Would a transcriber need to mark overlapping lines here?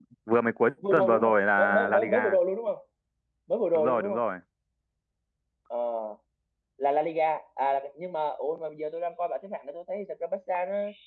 Yes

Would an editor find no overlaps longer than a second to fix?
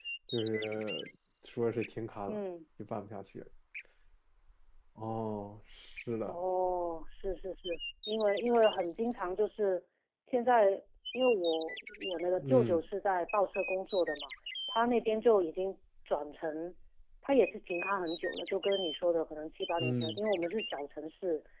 Yes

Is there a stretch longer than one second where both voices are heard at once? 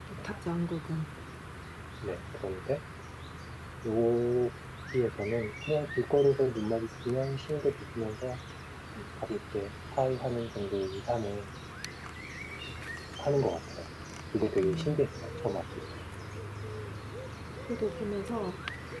No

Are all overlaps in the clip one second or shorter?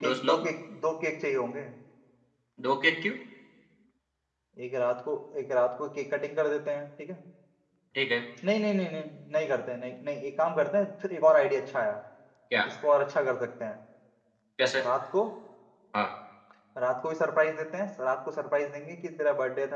Yes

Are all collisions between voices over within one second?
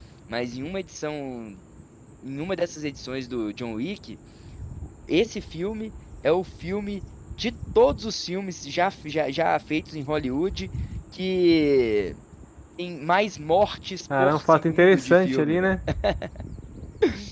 No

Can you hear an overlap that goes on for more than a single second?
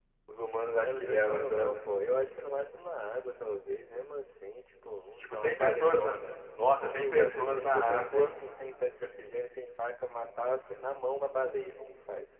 Yes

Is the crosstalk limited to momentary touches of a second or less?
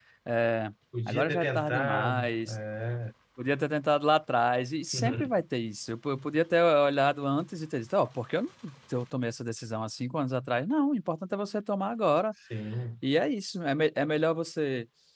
No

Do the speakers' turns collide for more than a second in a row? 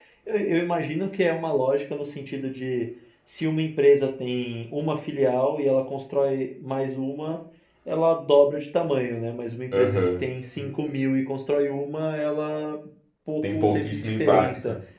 Yes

